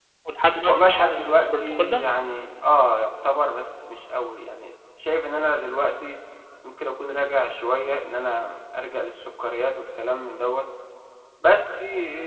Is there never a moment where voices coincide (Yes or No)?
No